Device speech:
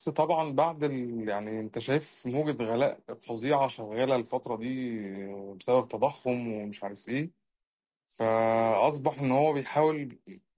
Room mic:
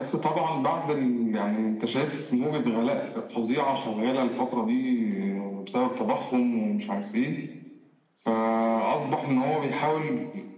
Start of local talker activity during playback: none

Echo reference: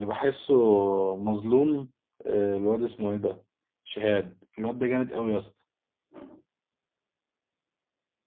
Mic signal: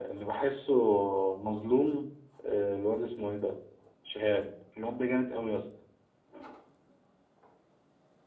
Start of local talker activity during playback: none

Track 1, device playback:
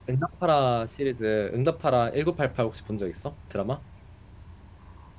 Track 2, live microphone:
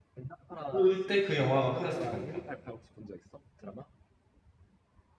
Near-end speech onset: 0.7 s

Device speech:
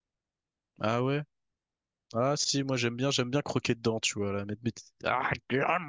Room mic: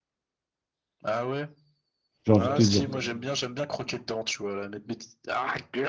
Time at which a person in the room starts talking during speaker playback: 2.2 s

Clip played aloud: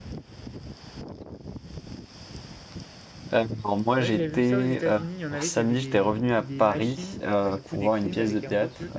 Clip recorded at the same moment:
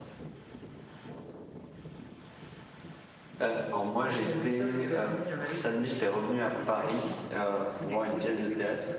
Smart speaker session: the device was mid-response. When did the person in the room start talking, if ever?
none

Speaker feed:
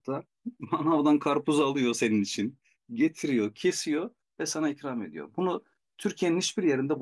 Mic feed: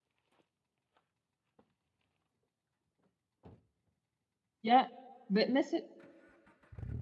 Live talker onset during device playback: 4.6 s

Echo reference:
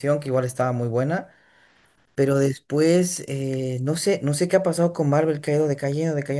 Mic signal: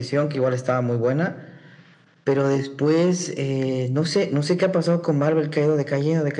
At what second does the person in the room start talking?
none

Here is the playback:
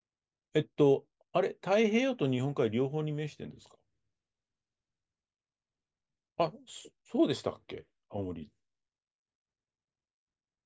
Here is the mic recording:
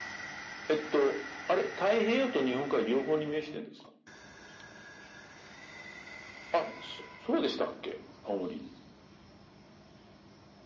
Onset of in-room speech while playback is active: none

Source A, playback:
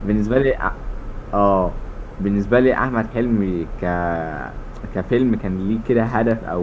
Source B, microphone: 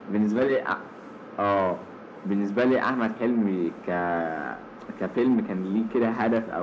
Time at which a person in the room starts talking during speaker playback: none

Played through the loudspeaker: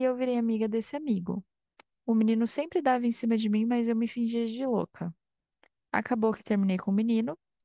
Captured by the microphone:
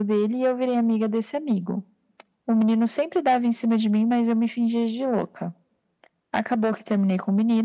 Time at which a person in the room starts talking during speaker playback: none

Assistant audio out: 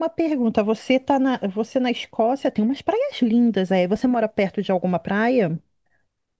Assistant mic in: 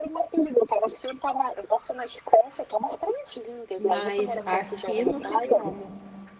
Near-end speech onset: 3.8 s

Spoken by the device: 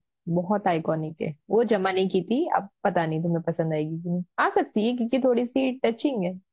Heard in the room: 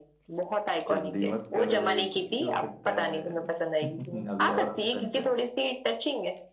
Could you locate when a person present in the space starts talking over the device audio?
0.9 s

